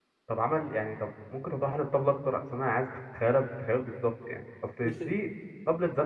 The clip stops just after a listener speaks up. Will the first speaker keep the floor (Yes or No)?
Yes